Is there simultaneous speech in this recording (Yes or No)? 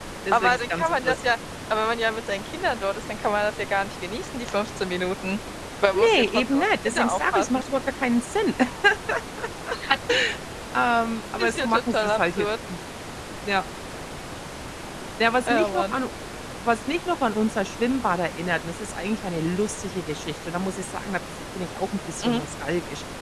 Yes